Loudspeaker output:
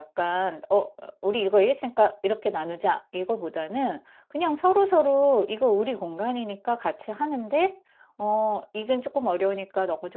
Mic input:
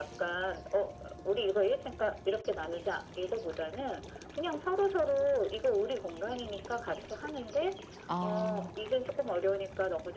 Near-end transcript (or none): 아.